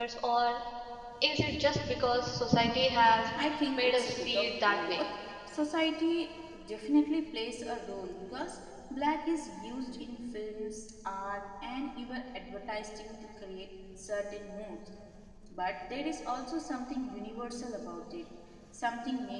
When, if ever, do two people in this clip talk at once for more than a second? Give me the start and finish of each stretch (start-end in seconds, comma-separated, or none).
3.7-5.0